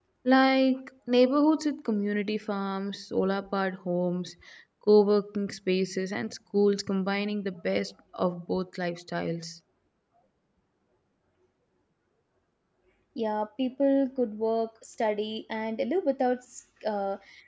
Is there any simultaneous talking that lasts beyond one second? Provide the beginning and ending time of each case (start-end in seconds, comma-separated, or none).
none